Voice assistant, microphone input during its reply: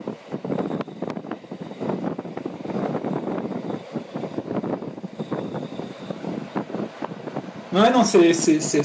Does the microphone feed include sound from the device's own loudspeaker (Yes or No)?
No